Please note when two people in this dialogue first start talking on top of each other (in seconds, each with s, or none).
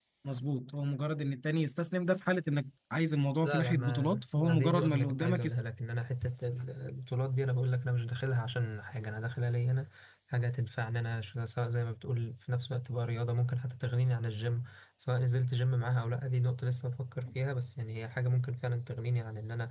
3.4 s